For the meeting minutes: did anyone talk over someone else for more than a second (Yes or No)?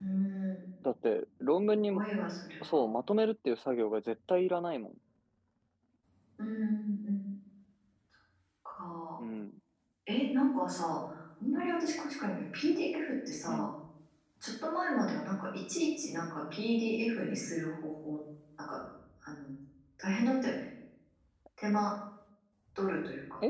No